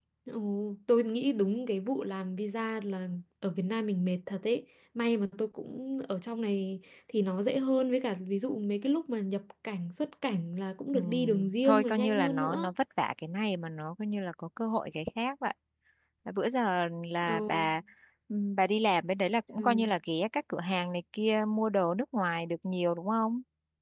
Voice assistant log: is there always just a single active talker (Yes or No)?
No